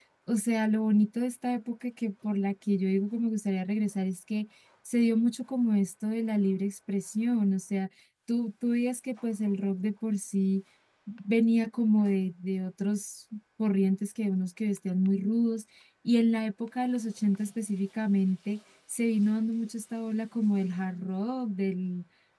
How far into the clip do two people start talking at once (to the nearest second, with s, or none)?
none